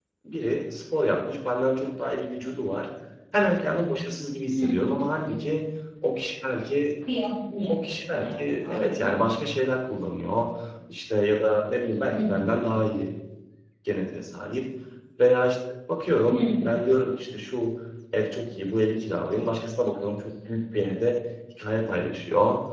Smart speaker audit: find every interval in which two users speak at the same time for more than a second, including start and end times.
7.7-9.2

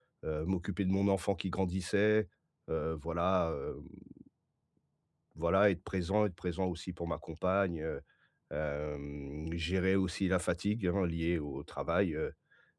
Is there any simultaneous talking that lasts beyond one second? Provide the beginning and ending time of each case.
none

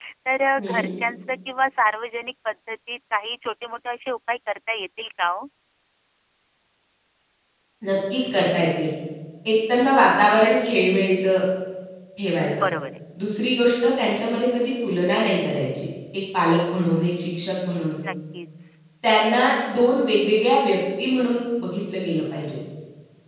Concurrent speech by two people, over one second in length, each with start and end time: none

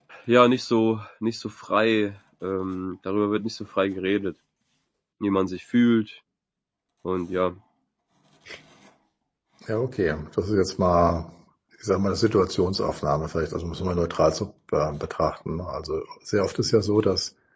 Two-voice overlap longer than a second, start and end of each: none

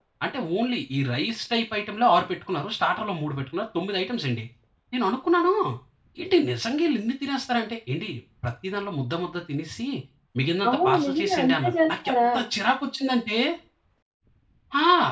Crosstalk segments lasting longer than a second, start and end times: 10.7-12.3

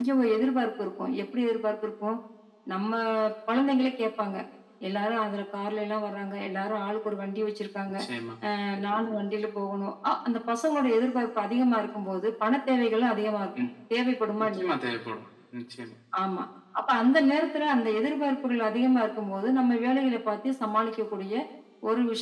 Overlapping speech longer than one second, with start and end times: none

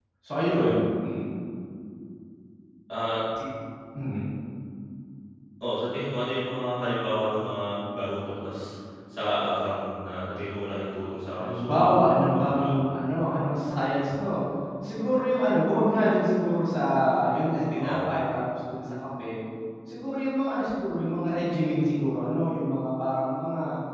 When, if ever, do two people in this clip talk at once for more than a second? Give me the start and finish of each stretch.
11.4-12.8

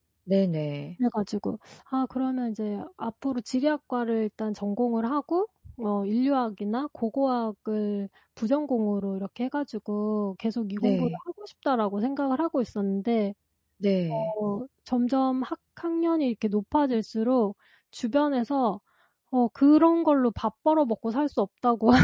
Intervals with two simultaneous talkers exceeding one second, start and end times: none

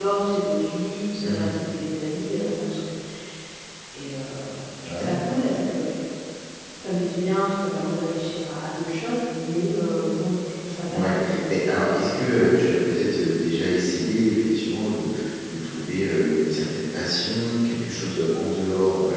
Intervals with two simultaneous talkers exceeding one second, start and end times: 10.9-12.3

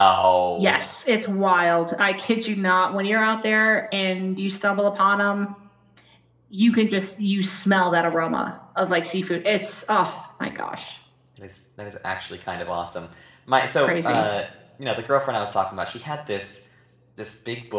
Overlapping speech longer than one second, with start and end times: none

